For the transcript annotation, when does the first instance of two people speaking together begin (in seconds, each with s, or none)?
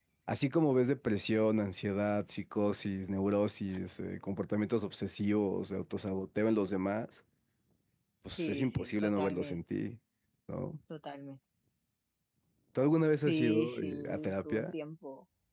8.4 s